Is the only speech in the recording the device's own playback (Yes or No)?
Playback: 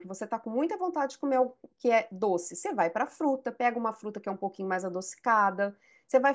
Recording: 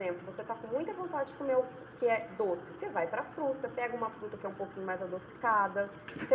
Yes